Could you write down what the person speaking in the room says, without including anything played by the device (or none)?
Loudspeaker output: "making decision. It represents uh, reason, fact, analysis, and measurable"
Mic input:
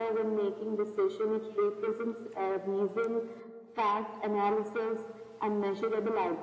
none